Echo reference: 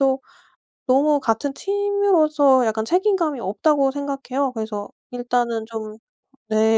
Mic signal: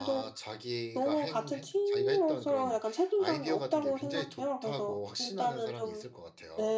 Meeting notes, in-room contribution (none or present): present